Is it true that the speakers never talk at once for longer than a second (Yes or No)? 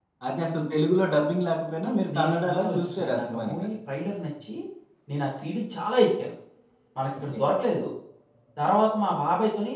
No